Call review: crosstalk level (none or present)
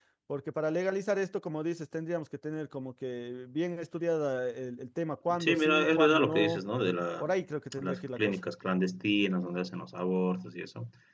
present